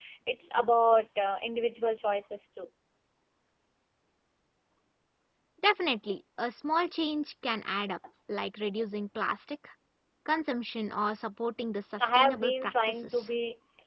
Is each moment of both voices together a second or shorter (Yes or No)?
No